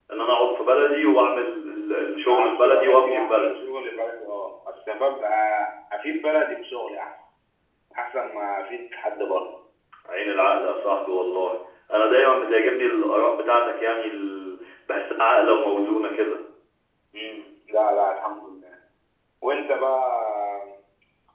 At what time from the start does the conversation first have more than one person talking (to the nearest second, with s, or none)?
2 s